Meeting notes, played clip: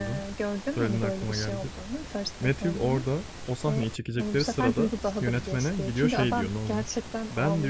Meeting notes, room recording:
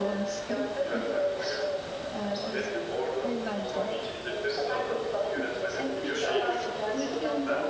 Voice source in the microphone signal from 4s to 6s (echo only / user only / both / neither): both